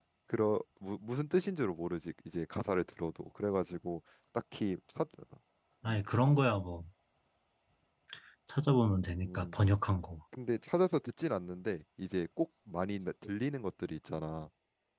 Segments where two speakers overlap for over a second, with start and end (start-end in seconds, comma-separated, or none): none